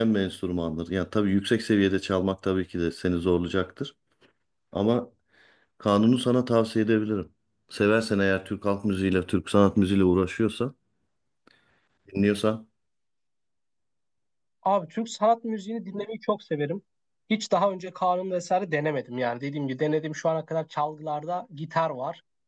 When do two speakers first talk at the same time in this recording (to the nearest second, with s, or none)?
none